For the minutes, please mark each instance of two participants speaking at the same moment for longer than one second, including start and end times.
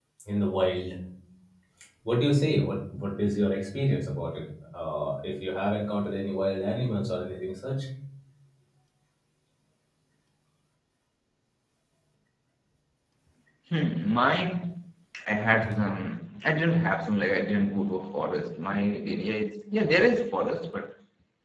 none

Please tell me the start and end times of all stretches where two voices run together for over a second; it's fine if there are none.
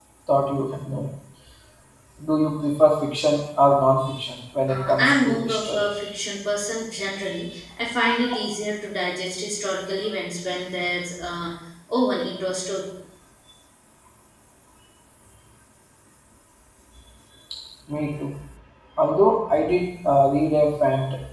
4.7-5.9

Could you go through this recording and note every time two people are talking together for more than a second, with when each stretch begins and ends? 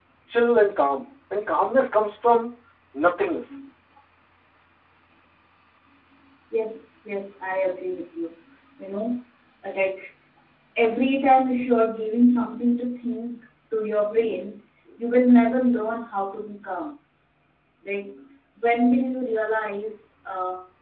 none

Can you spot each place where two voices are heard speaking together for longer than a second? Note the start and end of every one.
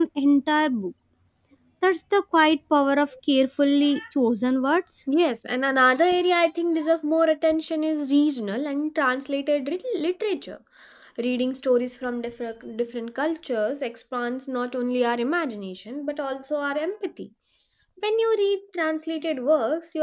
none

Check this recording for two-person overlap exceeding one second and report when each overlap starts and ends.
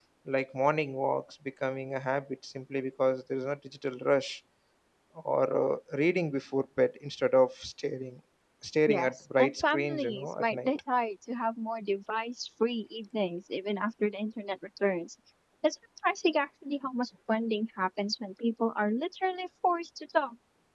8.9-10.7

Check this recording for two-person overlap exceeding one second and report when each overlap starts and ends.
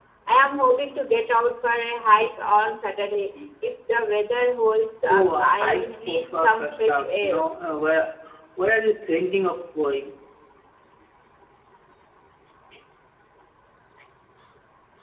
5.1-7.4

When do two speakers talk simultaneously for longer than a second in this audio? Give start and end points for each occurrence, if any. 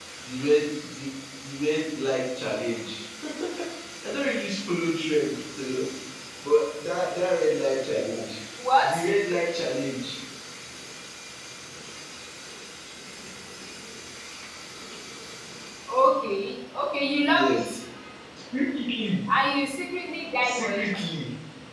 none

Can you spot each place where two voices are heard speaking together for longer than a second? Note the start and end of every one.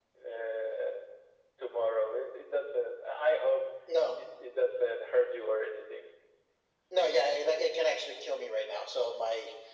none

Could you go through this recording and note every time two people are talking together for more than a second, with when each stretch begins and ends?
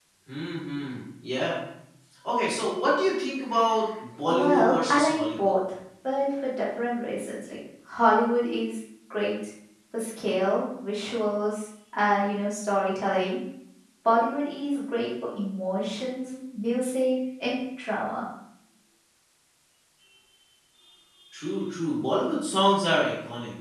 4.3-5.5

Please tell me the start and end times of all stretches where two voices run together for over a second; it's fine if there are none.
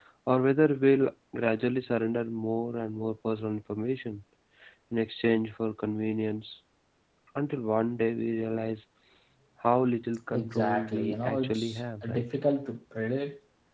10.4-11.6

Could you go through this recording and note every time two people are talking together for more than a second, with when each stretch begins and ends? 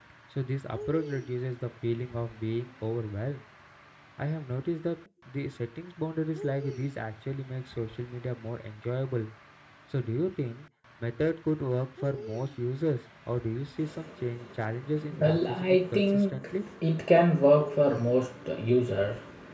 15.2-16.6

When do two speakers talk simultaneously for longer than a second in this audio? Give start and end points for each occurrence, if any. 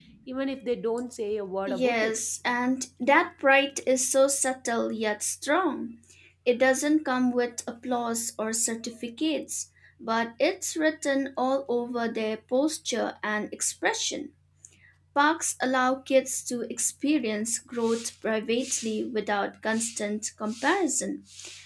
none

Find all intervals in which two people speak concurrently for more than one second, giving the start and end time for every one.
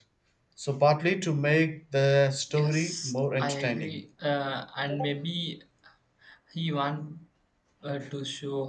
2.5-4.0

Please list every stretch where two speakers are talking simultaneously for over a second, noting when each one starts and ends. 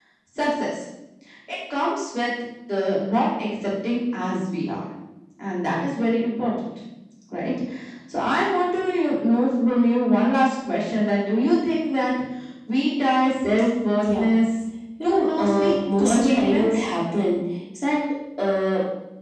15.0-16.7

